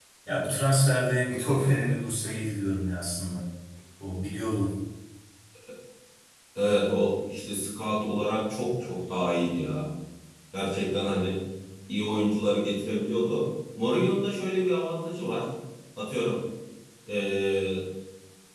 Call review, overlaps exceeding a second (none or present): none